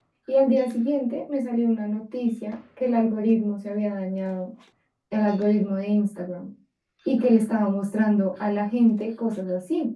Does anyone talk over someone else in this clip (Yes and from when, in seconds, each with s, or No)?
No